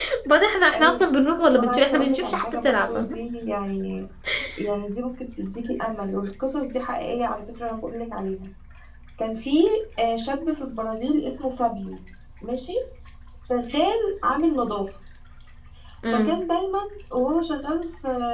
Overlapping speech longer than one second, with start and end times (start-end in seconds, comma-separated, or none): 1.5-3.2